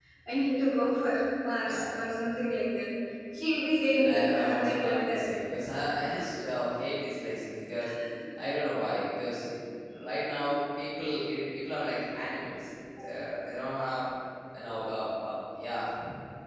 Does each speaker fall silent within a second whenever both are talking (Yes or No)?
No